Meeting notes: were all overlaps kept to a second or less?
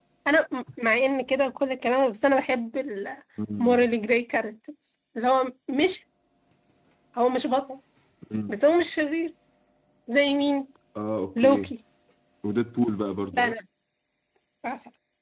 Yes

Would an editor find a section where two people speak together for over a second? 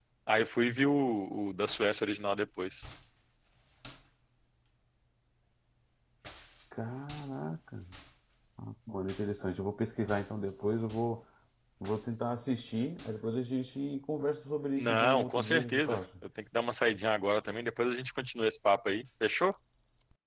Yes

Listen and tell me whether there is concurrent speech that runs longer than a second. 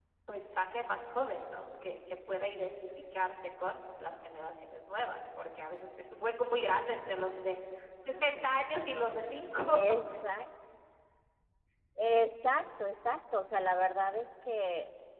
No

